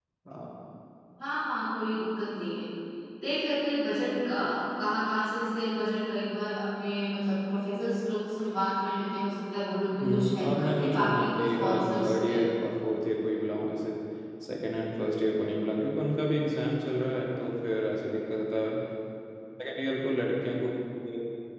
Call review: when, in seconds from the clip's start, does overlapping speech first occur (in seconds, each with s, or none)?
9.9 s